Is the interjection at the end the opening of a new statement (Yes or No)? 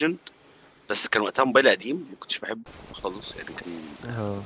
Yes